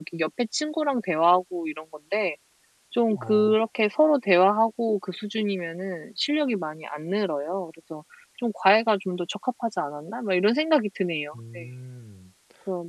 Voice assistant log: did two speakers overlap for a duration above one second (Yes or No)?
No